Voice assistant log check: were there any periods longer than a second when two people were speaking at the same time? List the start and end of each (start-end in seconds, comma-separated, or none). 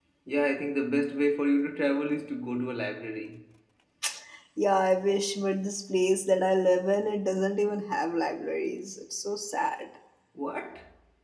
none